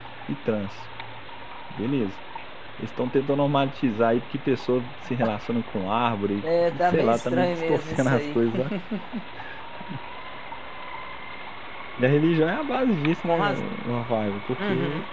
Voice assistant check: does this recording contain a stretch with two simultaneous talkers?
Yes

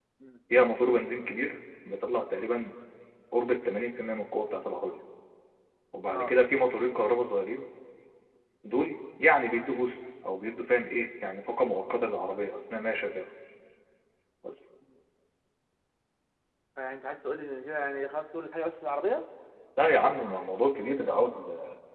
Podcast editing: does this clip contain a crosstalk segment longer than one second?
No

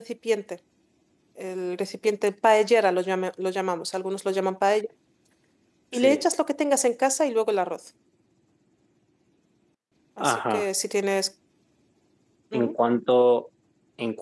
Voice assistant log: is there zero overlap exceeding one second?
Yes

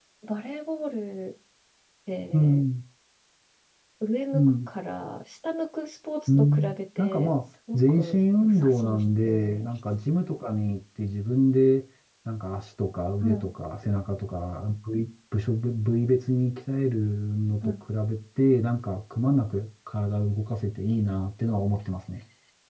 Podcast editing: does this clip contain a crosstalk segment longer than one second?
Yes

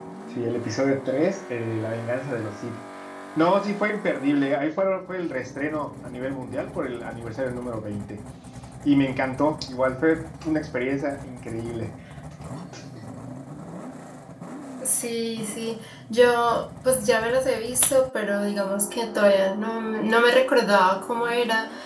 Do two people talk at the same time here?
No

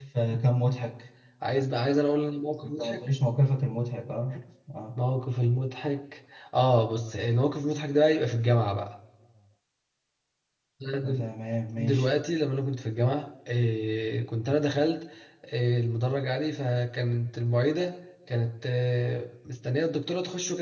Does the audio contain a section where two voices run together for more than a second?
No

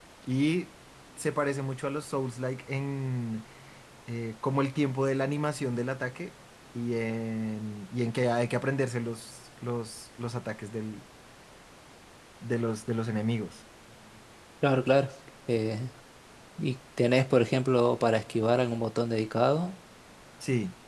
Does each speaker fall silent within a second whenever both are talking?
Yes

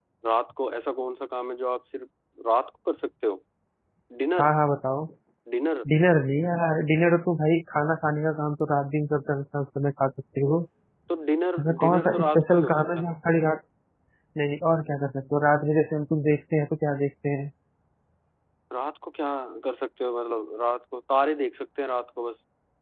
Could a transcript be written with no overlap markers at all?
No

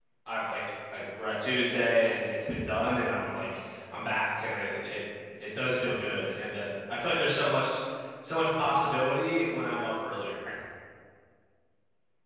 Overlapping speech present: No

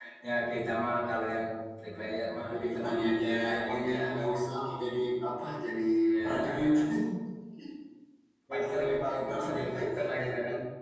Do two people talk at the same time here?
Yes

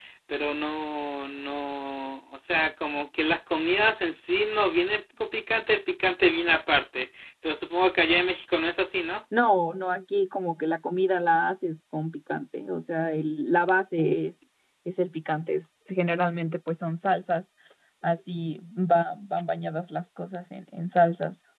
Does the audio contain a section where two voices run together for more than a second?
No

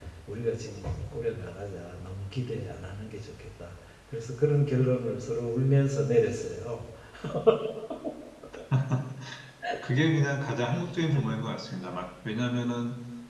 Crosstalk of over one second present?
No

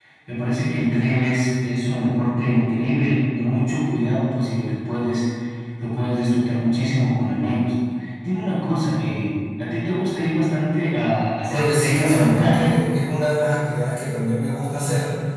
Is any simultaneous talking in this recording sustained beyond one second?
Yes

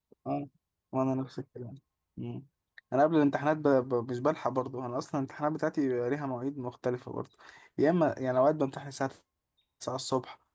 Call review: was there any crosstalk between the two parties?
No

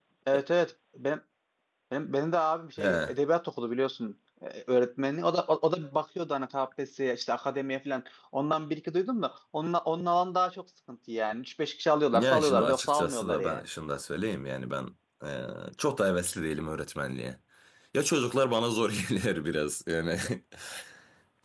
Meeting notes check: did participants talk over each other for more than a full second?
Yes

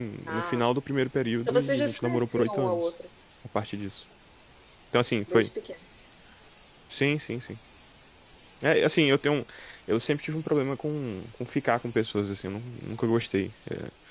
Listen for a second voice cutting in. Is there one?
Yes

